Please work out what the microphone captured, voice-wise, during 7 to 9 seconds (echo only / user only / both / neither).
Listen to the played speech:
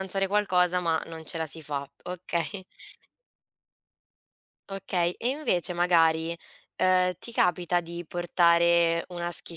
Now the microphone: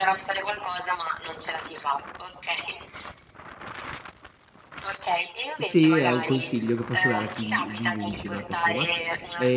both